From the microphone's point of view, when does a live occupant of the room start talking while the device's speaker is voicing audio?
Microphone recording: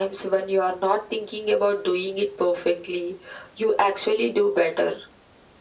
none

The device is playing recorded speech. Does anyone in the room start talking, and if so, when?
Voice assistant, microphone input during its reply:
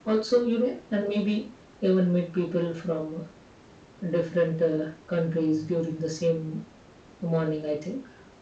none

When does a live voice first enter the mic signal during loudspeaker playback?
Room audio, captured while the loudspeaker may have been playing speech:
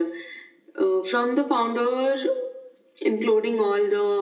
none

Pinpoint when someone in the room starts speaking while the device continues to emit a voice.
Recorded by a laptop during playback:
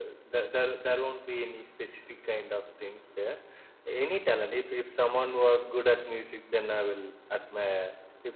none

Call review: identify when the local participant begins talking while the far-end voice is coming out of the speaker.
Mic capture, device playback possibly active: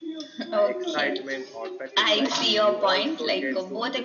0.6 s

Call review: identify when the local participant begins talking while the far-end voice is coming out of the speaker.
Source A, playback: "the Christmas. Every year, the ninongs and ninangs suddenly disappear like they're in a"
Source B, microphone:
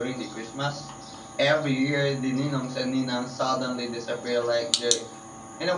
none

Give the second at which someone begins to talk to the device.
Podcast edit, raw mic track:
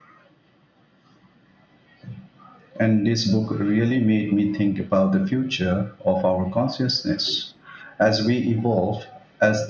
none

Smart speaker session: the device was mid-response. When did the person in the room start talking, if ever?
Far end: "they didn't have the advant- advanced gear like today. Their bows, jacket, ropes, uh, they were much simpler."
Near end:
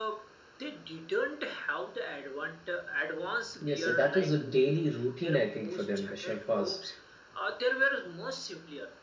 3.6 s

